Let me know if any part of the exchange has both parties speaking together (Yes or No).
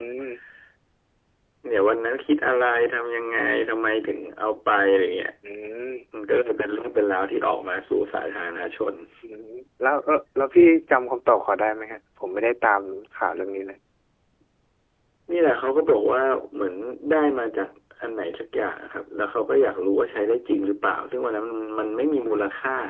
No